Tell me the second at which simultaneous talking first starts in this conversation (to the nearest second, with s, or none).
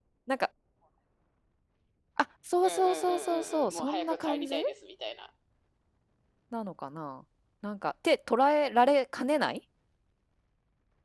3 s